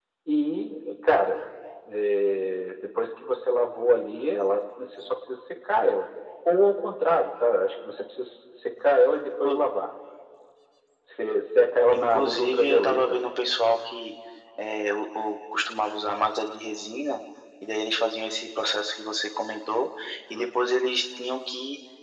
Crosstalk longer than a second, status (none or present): present